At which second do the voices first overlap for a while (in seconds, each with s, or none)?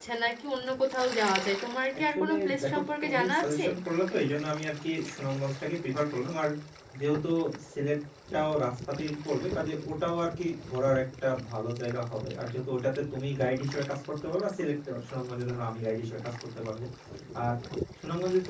2.1 s